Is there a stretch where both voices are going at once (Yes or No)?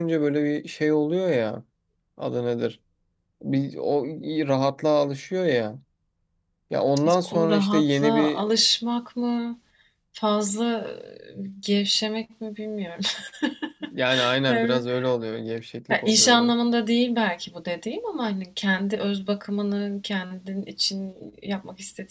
Yes